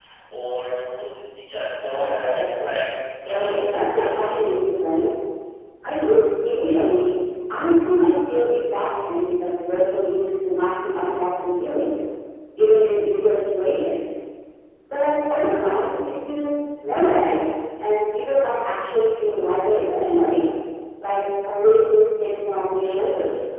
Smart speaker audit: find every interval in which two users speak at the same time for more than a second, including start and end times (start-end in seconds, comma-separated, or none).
3.2-4.5